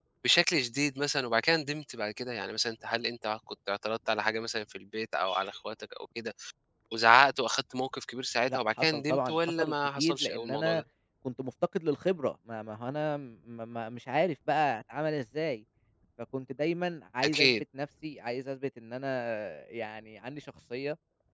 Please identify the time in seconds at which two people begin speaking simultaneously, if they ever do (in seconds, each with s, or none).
8.5 s